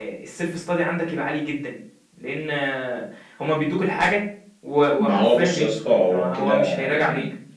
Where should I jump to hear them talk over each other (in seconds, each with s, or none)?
5.0 s